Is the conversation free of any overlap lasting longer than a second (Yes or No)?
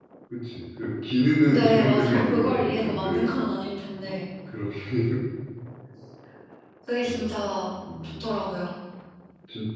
No